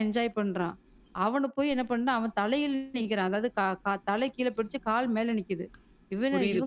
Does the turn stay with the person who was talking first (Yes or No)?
Yes